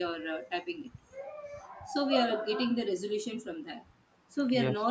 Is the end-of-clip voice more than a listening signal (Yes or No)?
No